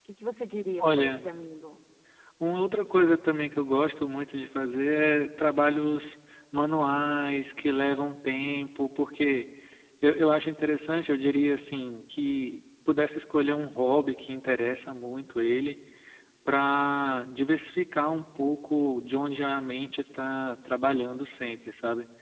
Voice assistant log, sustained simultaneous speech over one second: none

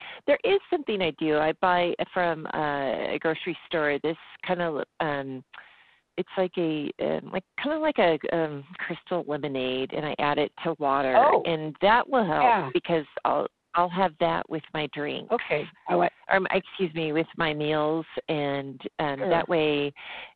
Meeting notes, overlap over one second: none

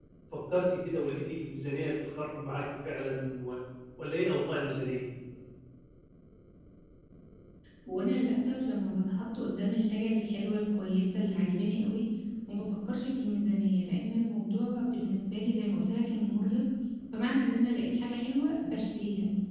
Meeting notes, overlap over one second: none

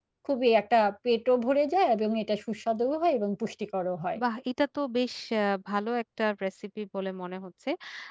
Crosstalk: none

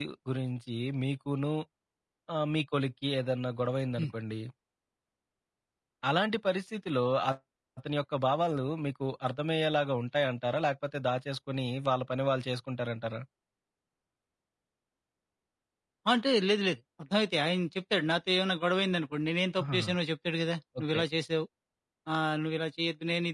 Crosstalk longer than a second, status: none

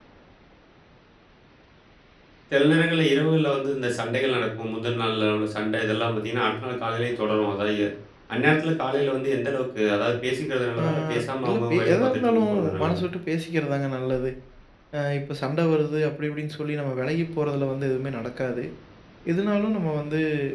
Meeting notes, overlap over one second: present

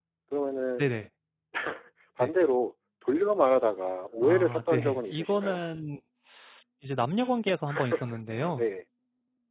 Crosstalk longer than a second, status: present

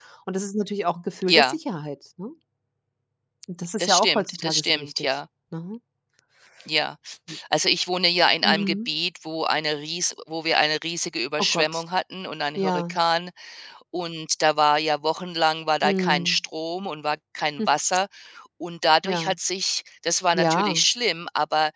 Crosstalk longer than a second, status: present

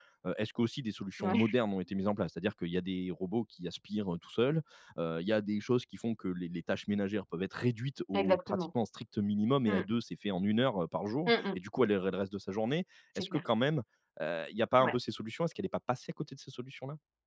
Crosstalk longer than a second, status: none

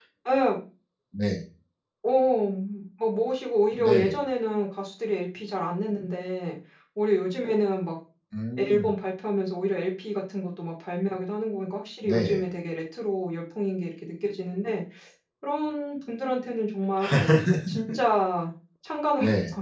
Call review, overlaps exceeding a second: none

